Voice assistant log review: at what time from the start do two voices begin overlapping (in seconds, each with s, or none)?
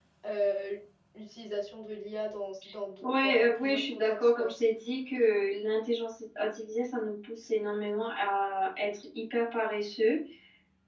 3.0 s